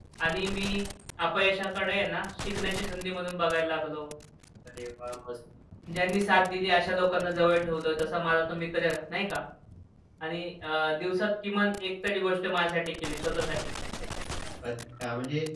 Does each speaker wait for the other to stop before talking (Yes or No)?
Yes